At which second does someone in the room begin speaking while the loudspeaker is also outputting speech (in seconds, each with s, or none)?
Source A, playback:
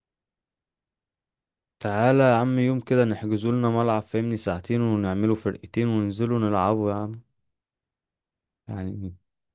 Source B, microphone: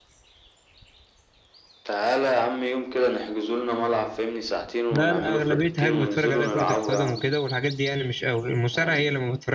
4.9 s